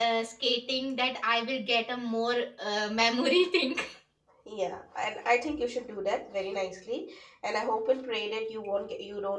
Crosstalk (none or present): none